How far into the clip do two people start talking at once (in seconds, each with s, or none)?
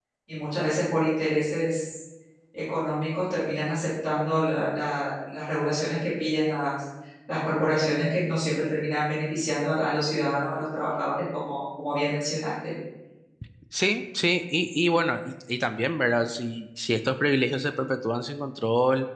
none